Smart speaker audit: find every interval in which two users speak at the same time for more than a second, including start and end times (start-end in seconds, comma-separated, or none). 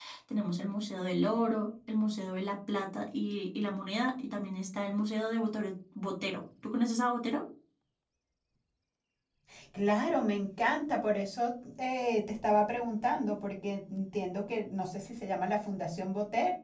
none